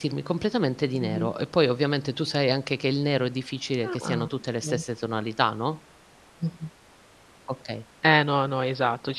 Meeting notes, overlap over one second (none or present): none